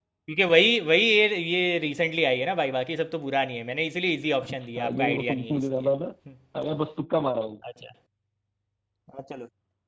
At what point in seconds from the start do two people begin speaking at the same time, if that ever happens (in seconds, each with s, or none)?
4.4 s